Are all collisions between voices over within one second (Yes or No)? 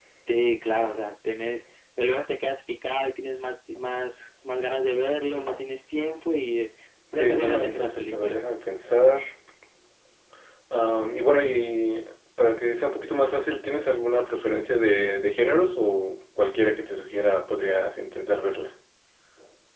No